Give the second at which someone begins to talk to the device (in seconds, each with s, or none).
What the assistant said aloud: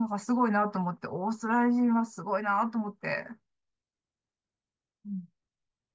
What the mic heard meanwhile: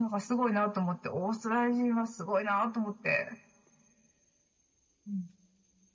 none